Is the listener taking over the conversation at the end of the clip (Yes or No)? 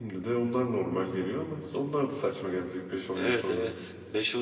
Yes